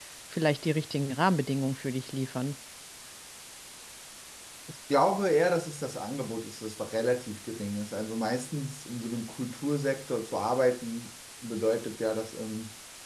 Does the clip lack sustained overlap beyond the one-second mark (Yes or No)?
Yes